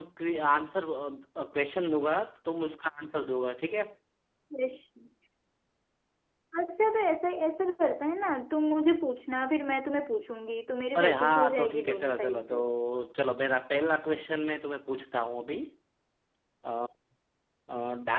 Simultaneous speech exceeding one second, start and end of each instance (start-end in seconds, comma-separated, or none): 11.0-12.6